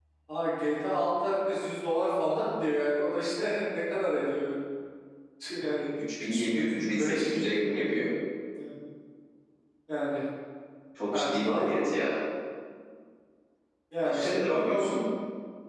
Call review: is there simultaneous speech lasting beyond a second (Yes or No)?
Yes